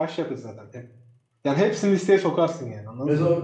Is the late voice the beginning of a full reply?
Yes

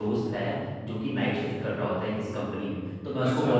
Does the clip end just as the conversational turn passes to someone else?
No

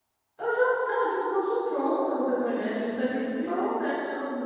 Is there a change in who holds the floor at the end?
No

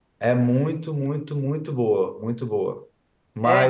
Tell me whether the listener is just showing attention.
Yes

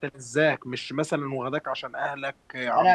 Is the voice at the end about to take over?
Yes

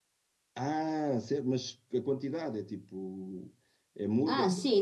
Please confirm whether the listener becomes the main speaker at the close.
Yes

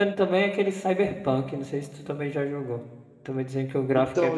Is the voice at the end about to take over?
Yes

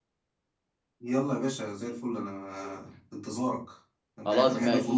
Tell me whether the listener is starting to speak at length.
Yes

